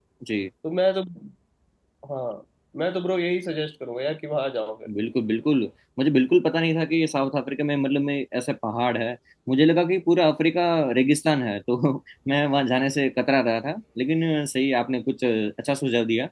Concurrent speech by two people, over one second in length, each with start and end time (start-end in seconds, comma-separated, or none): none